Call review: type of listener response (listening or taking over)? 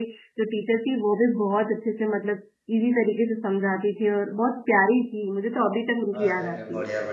taking over